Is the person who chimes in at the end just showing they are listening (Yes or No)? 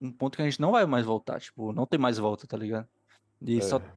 Yes